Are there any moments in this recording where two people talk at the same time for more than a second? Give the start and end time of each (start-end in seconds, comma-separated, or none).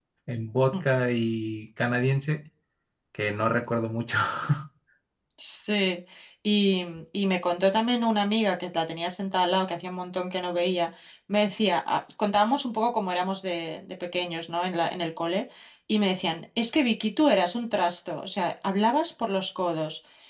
none